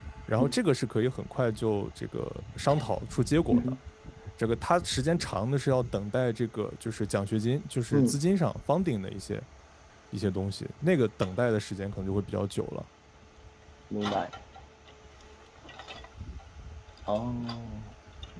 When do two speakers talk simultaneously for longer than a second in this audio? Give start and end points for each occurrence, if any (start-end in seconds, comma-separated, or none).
none